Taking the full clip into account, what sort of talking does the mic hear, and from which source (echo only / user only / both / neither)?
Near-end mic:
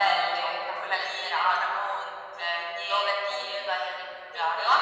echo only